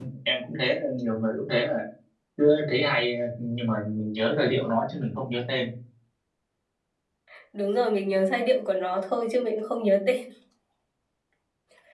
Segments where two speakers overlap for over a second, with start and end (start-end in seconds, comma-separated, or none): none